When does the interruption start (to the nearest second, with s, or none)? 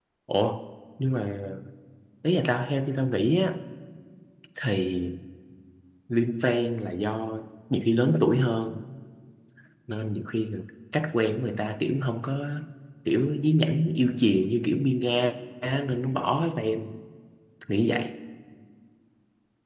none